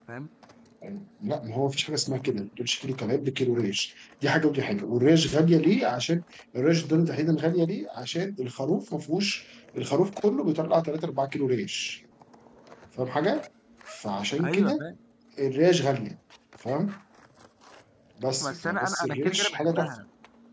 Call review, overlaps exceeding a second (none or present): present